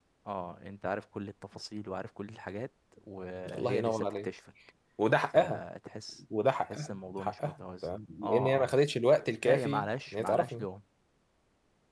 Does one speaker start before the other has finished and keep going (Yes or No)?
Yes